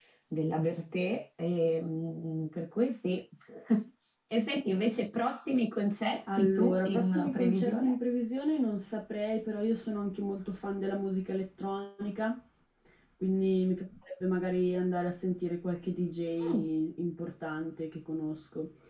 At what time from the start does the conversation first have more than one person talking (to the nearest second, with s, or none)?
6 s